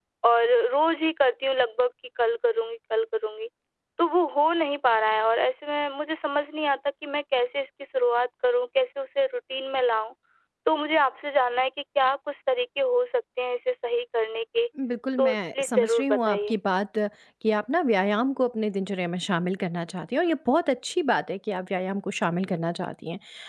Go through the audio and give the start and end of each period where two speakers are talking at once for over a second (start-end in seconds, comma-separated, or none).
15.2-16.6